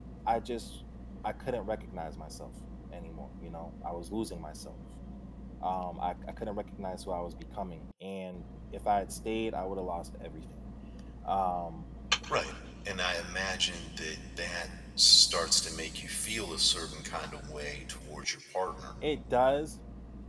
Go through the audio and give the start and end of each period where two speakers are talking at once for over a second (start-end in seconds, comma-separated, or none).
none